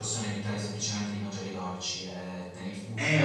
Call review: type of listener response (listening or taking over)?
taking over